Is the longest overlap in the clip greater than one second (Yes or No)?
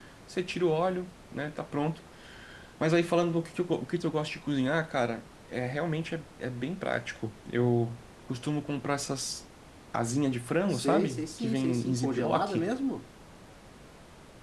Yes